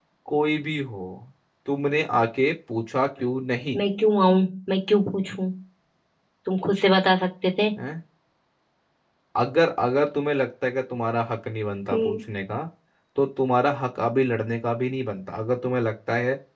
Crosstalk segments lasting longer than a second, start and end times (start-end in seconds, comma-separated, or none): none